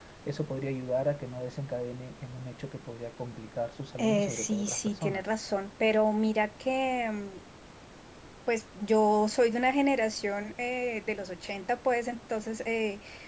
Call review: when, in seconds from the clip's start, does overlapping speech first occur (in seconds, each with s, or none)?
4.0 s